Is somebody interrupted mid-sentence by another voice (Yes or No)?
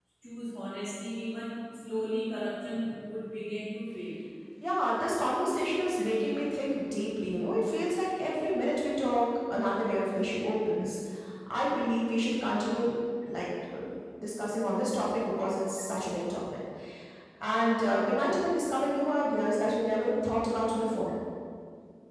No